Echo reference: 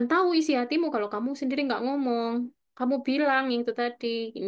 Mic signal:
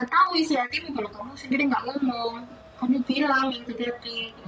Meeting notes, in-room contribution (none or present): none